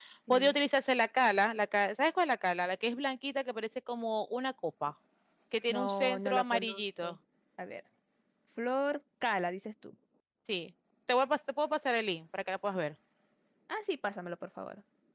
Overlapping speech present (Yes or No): Yes